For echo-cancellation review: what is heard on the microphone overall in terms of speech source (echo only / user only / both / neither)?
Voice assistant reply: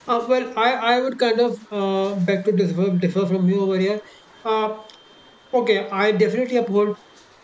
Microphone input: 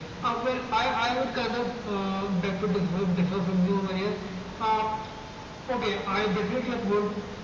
echo only